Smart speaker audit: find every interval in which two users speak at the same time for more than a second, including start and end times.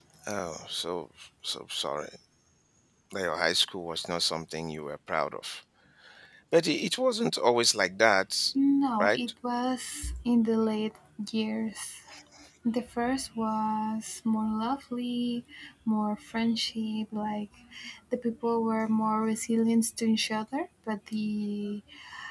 none

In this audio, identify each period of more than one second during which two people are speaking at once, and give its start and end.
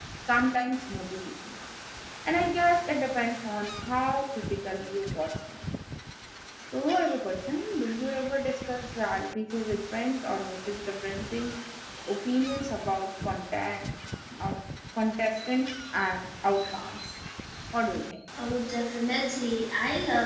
none

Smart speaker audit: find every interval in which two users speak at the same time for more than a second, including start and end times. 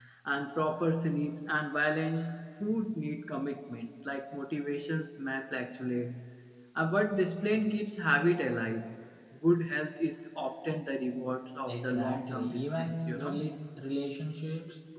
11.7-13.4

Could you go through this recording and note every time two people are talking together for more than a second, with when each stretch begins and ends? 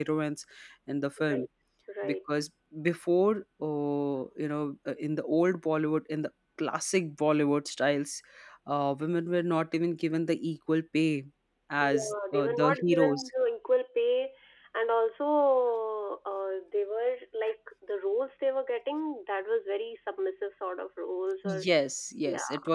11.8-13.3

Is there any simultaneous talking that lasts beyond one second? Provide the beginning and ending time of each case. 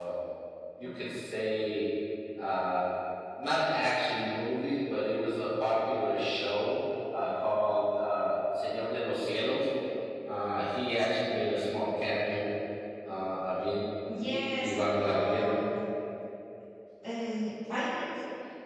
14.3-15.5

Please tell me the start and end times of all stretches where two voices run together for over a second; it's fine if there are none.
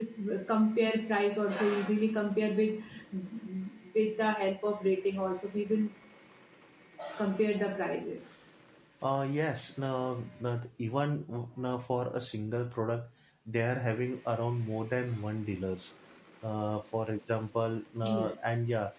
none

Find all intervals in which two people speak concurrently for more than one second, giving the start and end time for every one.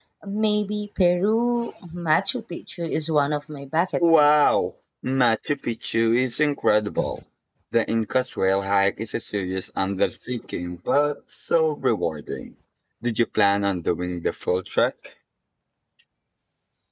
none

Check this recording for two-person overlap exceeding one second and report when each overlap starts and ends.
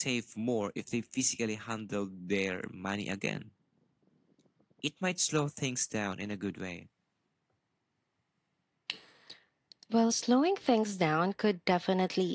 none

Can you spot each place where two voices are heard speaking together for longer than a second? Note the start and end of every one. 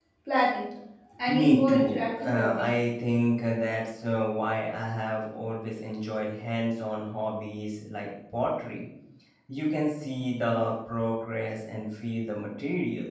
1.3-2.7

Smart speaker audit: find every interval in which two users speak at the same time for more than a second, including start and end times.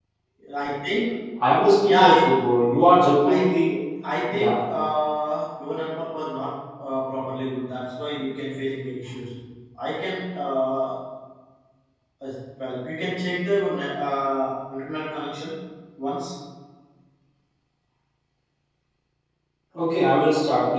none

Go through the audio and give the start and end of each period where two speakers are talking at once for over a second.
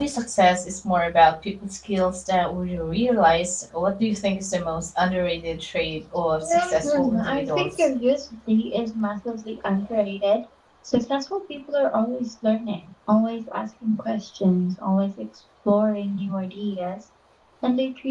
6.4-7.8

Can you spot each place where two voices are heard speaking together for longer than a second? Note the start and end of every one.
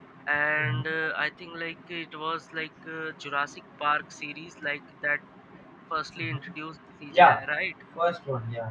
none

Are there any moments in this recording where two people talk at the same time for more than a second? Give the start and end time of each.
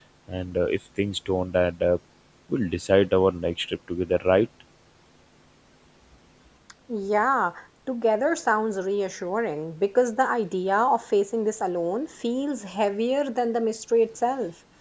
none

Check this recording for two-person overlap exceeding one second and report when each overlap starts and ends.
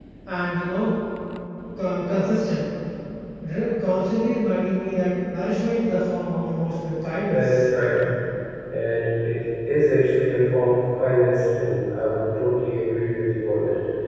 none

